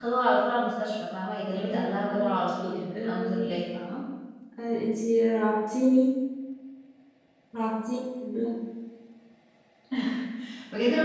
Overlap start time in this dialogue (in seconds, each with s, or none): 1.7 s